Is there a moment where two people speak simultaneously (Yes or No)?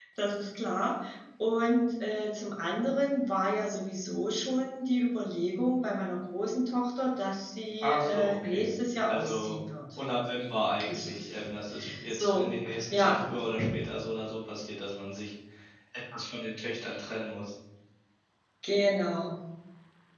Yes